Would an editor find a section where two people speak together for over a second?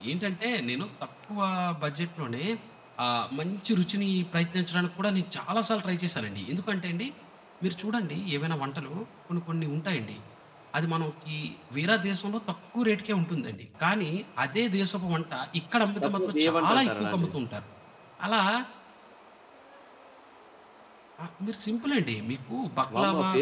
Yes, from 16.0 s

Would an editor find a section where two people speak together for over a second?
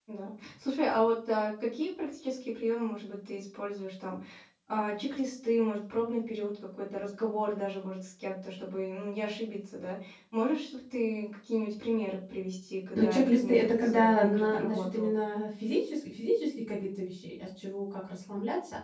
Yes, from 12.9 s

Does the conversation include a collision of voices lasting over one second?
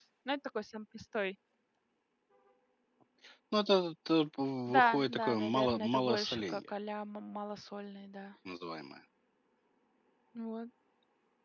Yes, from 4.7 s

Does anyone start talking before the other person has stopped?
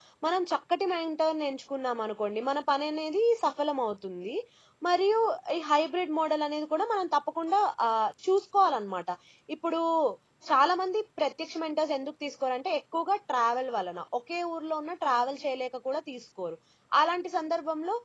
No

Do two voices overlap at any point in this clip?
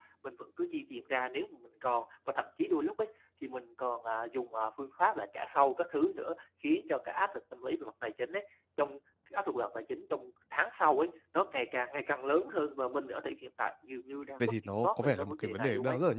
Yes, from 14.4 s

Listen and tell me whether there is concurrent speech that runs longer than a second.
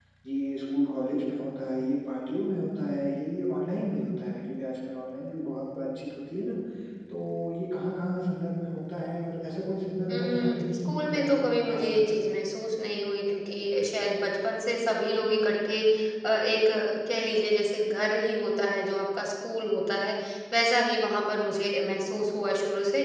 Yes, from 10.1 s

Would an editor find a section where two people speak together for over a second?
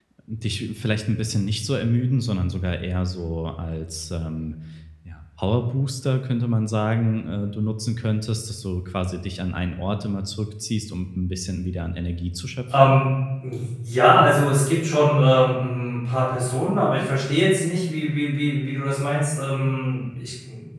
No

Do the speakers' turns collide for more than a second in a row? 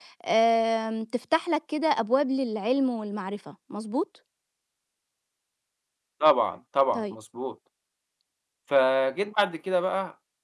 No

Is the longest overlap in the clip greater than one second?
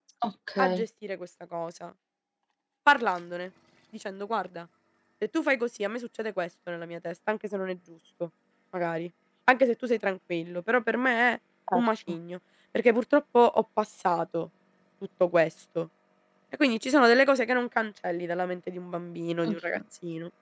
No

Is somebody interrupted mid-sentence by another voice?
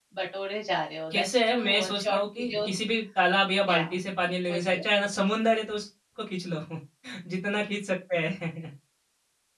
Yes, from 1.1 s

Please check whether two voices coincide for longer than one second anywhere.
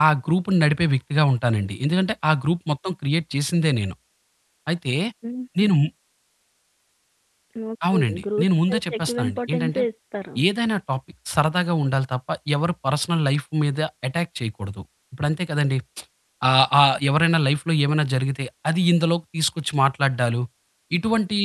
Yes, from 7.9 s

